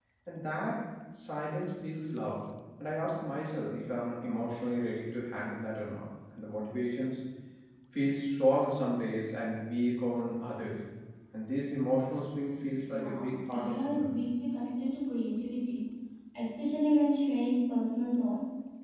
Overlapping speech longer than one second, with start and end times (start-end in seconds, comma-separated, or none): 12.9-14.2